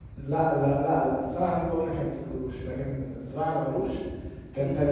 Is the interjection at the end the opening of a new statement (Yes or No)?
Yes